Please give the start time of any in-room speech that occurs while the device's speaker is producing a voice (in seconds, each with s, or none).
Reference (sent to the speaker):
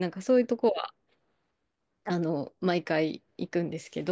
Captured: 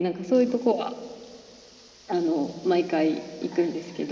none